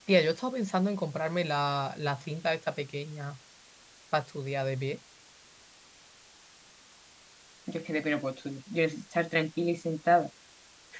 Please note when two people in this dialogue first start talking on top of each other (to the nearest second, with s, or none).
none